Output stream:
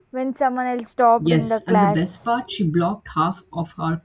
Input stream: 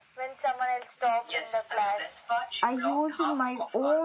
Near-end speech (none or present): present